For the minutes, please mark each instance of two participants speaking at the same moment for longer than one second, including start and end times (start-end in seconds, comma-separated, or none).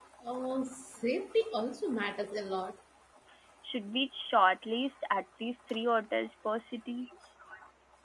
none